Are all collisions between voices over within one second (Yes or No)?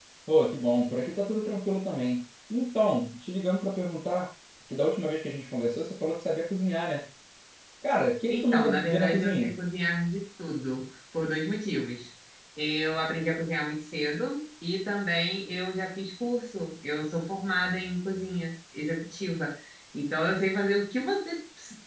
No